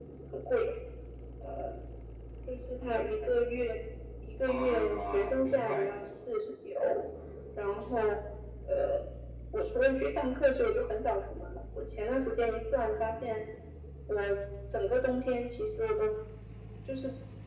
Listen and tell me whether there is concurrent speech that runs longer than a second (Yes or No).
Yes